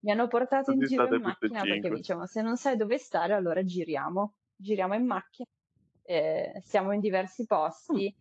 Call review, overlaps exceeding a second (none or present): present